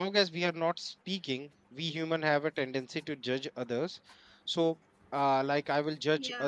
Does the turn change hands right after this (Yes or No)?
No